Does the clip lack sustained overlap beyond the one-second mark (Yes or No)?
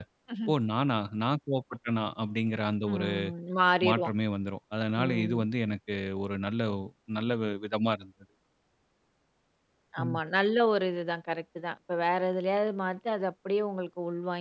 Yes